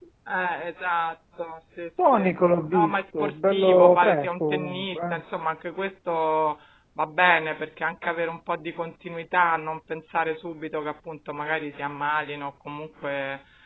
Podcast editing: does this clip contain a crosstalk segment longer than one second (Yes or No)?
Yes